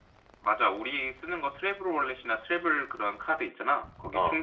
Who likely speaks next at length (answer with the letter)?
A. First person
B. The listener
A